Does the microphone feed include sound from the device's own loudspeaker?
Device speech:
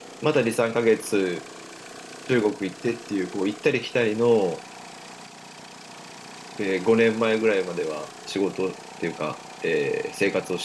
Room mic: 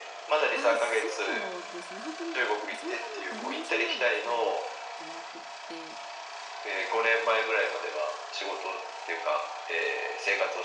Yes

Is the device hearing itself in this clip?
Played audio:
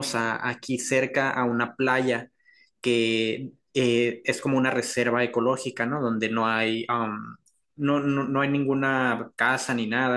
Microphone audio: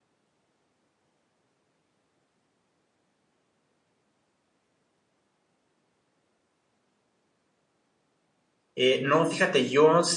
No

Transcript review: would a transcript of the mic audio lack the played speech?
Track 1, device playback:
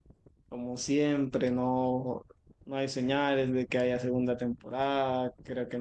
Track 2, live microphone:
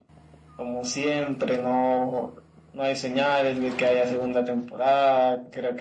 No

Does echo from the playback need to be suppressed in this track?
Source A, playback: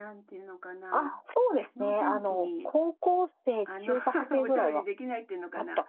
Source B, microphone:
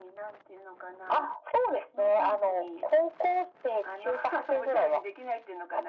Yes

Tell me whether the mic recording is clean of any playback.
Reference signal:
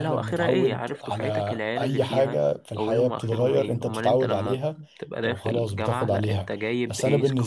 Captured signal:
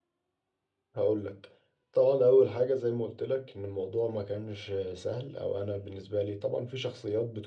Yes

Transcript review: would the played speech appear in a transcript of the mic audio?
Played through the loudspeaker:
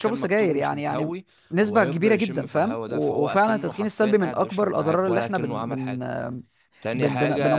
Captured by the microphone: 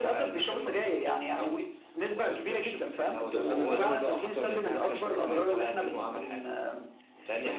Yes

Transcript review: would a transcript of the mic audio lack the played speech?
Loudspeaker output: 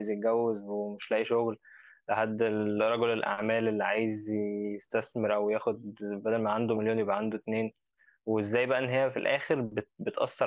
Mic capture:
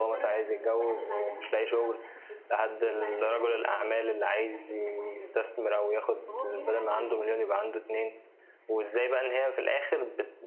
No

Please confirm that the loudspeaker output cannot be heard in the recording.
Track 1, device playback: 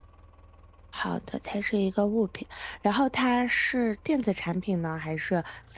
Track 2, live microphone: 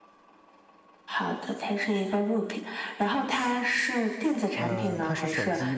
No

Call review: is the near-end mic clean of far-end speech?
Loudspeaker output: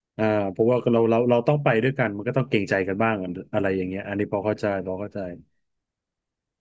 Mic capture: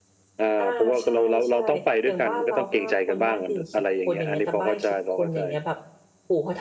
No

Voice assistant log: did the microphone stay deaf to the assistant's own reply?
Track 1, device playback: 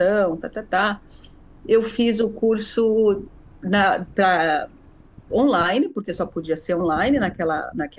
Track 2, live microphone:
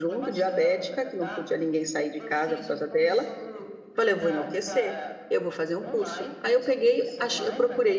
No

